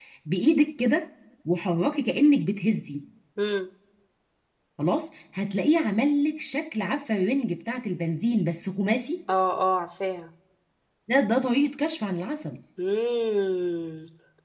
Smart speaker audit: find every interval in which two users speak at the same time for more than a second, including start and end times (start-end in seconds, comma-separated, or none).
none